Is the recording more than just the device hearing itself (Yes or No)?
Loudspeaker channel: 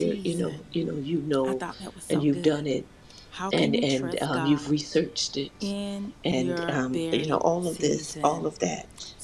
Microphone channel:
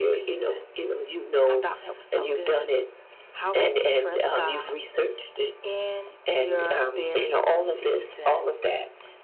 No